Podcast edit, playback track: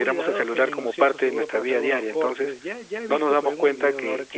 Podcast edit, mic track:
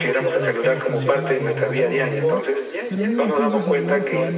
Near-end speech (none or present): present